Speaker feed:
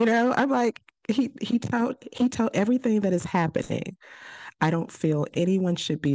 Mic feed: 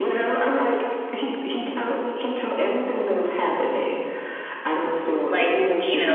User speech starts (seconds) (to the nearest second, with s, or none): 5 s